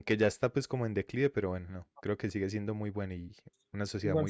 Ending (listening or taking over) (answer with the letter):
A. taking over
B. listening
A